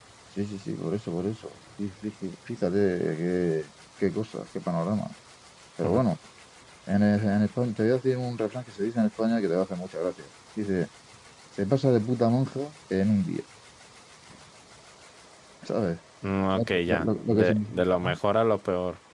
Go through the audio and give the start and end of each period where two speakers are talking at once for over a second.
16.5-18.2

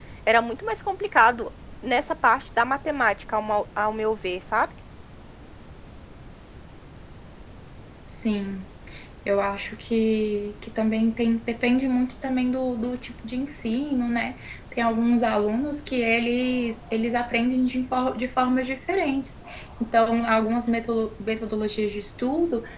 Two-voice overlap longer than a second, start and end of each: none

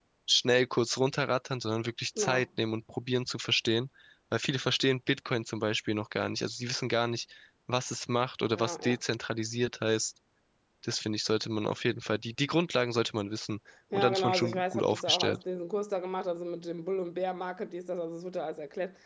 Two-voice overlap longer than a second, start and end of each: 13.9-15.4

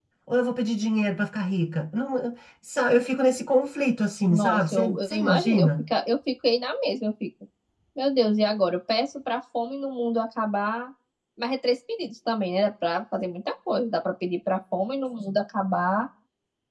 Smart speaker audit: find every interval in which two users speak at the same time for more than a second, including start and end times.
4.3-5.9

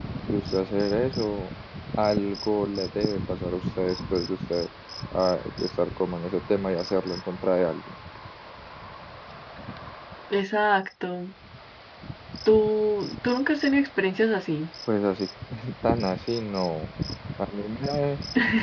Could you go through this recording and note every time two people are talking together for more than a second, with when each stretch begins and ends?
none

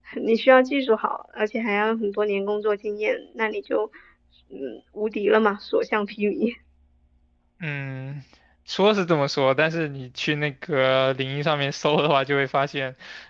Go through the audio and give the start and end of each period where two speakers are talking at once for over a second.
none

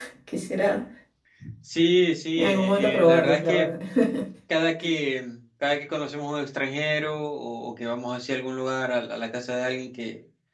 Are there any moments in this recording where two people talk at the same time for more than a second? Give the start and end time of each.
2.4-3.7

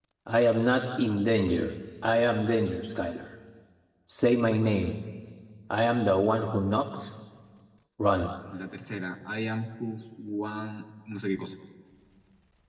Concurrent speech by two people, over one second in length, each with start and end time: none

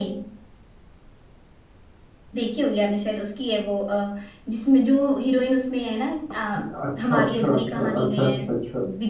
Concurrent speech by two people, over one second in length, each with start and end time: 7.0-8.3

